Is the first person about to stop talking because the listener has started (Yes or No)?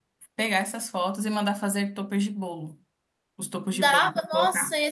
Yes